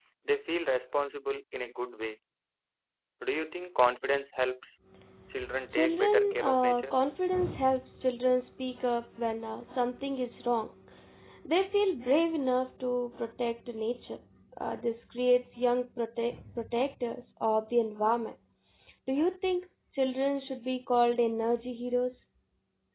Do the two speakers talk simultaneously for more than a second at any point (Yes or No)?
Yes